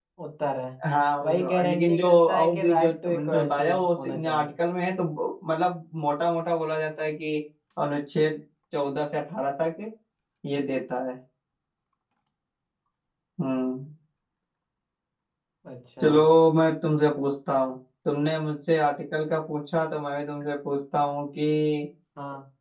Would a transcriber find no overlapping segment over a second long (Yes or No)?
No